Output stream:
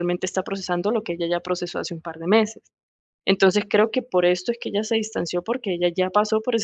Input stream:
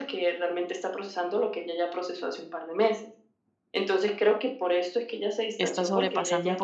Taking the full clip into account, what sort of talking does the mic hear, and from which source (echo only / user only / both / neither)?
both